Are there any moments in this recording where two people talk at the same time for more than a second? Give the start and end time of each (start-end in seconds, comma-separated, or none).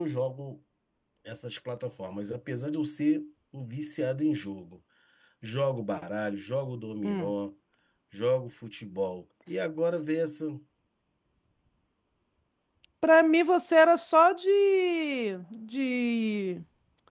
none